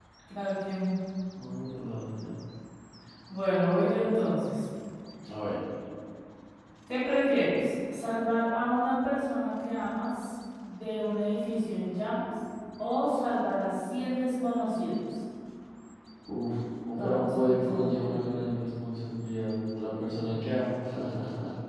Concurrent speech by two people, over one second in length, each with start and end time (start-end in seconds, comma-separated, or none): 16.9-18.6